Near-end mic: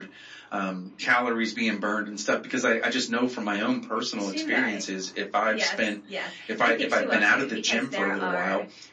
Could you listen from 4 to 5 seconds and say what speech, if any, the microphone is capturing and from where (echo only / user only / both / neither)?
echo only